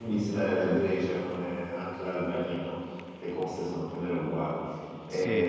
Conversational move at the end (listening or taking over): taking over